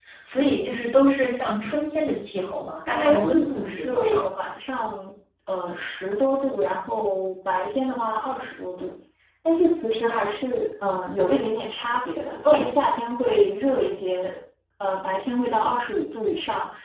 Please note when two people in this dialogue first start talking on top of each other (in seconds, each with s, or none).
2.9 s